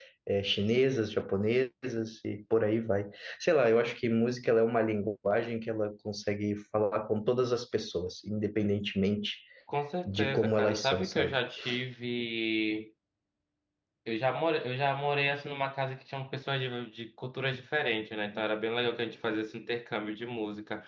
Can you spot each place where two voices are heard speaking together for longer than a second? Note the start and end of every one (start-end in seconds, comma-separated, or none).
10.0-11.4